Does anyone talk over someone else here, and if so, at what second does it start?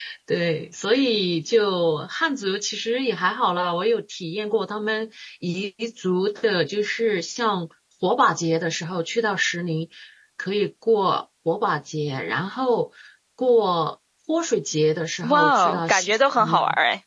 15 s

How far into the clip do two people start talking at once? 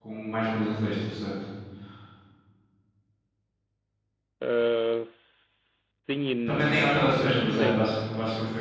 6 s

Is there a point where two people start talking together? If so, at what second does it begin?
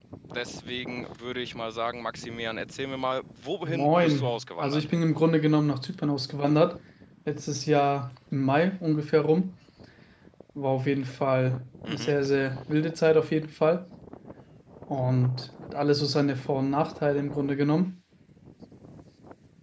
4 s

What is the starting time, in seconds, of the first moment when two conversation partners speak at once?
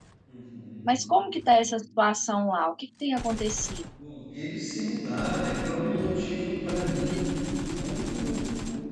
none

